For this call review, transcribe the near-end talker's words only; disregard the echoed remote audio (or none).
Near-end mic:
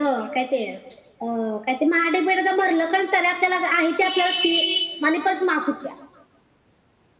none